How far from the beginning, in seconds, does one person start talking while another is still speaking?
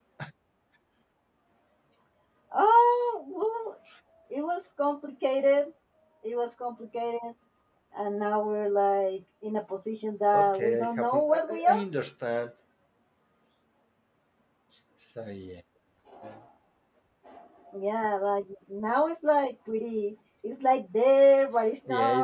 10.3 s

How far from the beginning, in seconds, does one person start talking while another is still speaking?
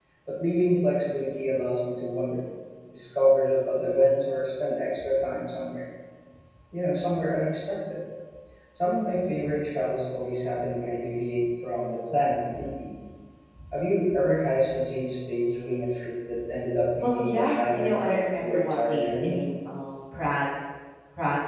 17.0 s

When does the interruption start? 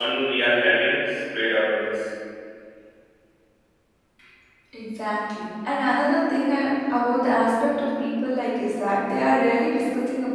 none

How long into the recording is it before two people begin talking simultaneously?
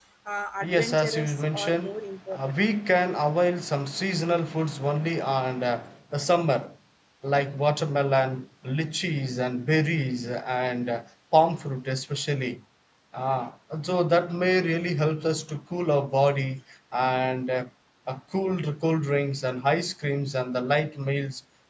0.6 s

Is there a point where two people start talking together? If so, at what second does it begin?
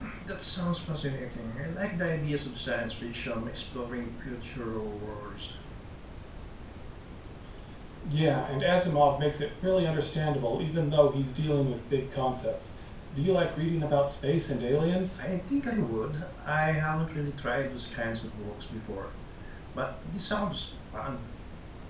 none

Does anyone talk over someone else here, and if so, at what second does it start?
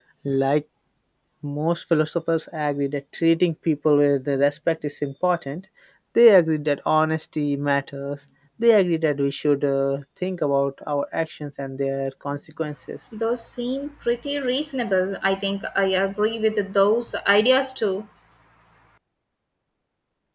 none

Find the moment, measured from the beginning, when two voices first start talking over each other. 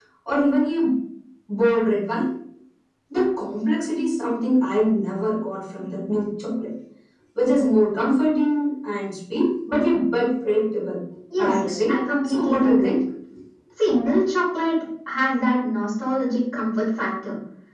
11.5 s

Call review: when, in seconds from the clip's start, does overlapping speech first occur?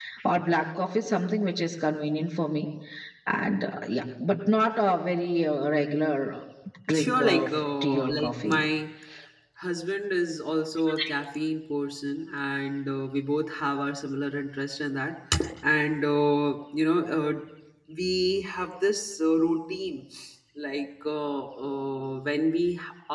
6.9 s

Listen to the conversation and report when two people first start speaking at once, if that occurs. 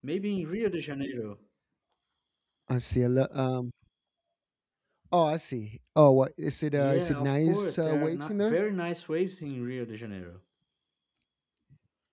6.7 s

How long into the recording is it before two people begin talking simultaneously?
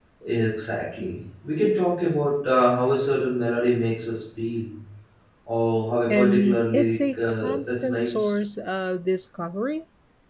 6.1 s

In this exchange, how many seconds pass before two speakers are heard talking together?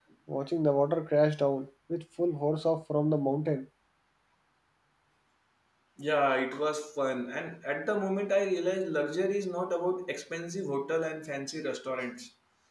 none

